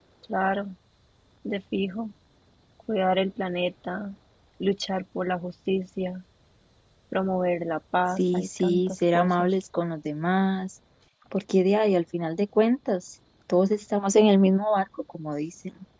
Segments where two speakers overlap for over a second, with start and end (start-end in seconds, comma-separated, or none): 8.2-9.5